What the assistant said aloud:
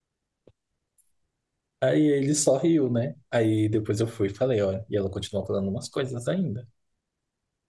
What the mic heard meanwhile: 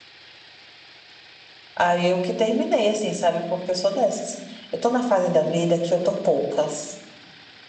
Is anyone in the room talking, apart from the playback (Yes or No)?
Yes